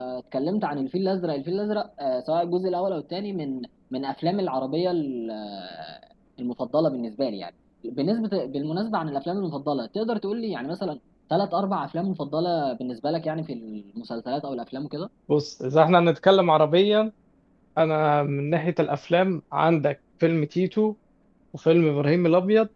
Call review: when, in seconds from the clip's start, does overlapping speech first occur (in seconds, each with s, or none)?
none